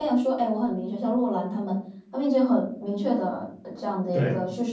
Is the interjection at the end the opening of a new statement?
No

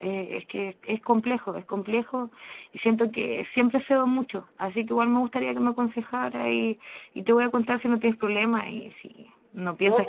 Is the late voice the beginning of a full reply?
Yes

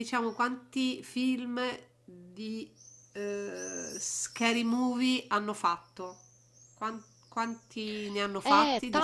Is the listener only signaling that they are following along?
No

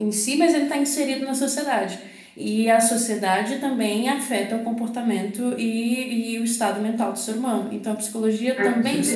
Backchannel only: Yes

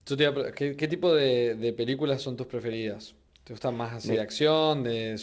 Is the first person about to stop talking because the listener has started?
No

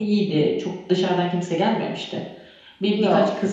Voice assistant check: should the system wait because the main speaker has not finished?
Yes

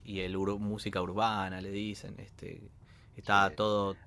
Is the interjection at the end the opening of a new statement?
Yes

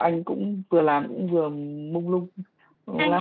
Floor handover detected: Yes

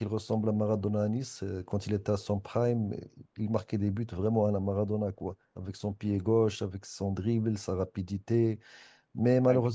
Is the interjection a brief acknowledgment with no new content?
Yes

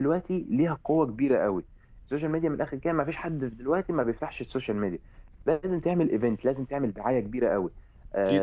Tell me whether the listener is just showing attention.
Yes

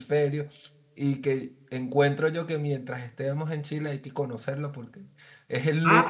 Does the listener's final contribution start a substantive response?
No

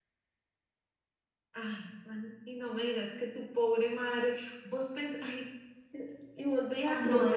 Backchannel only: Yes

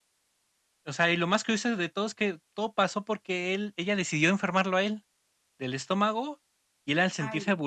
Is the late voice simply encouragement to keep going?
Yes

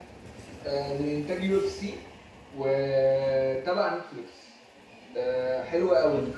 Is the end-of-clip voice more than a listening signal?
No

